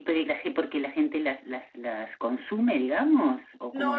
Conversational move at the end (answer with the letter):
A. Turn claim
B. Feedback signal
A